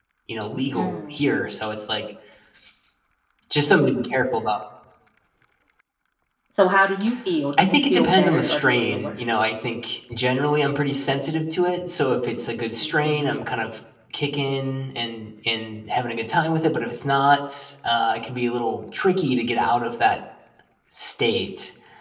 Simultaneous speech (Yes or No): Yes